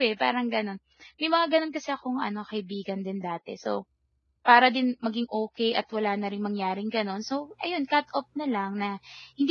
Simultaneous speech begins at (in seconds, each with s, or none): none